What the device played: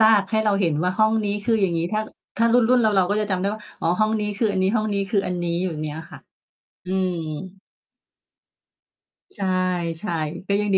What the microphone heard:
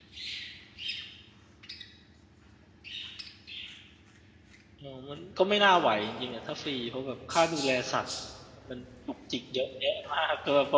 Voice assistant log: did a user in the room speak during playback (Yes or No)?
Yes